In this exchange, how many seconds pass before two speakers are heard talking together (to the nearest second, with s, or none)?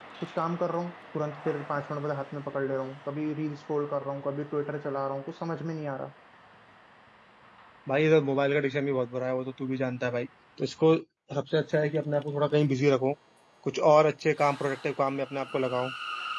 none